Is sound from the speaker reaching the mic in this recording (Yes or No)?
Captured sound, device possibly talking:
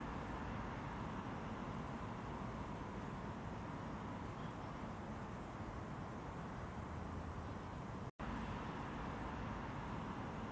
No